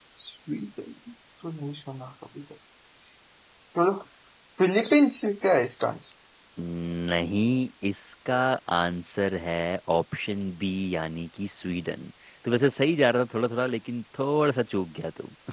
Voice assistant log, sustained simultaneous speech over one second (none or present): none